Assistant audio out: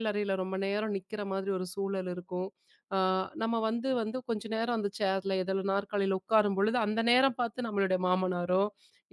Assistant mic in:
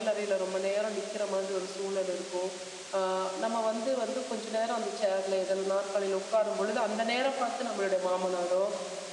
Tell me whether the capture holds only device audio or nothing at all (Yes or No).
Yes